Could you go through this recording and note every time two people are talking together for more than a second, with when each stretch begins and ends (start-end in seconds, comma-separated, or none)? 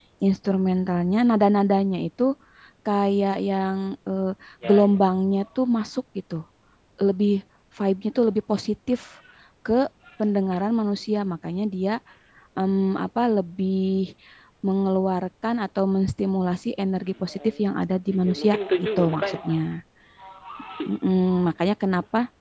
18.1-19.4